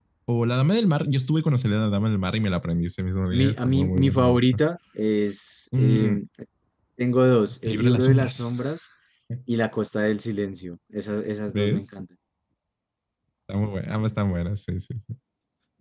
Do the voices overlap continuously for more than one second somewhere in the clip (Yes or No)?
Yes